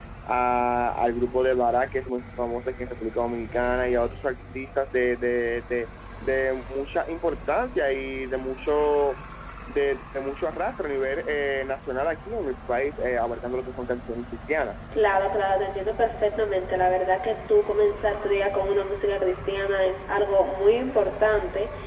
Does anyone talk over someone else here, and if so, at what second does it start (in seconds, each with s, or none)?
none